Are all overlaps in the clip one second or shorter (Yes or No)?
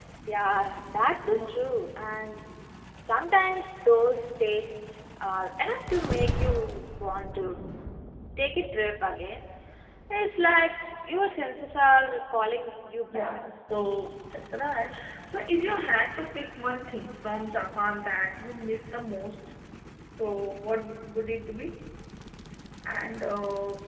Yes